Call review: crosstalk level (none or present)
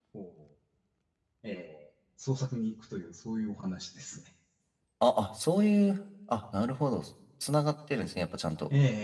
none